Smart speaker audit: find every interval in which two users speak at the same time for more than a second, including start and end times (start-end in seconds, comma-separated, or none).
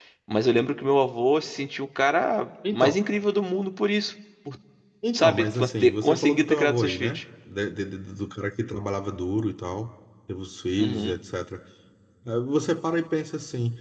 5.1-7.2